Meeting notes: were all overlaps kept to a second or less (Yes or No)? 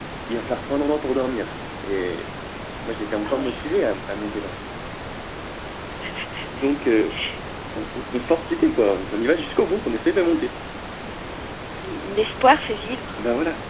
Yes